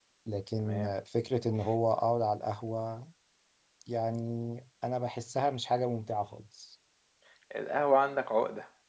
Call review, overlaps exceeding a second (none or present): none